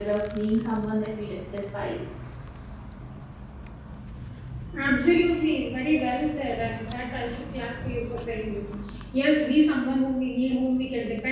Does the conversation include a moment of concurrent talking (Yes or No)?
No